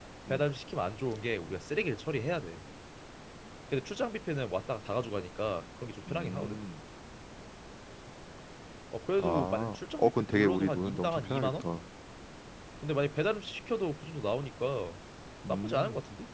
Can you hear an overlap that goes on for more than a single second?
Yes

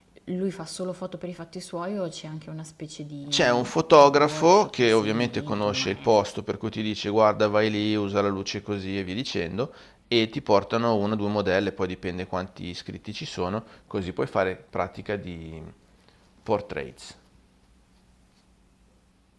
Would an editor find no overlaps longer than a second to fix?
No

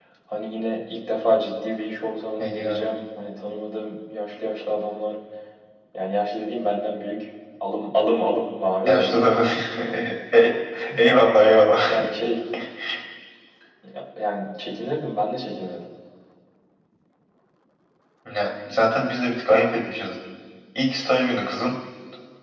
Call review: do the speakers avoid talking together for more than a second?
Yes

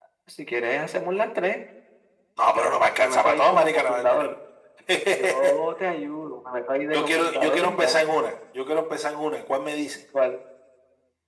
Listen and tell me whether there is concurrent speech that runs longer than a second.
Yes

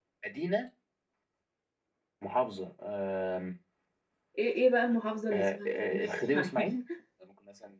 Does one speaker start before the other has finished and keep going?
Yes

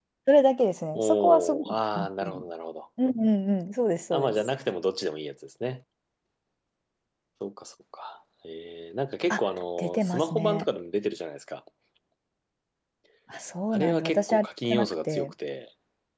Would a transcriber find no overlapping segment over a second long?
No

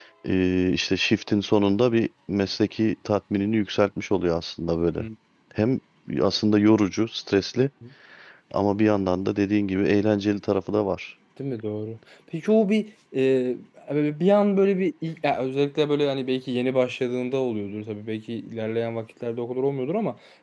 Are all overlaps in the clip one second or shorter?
Yes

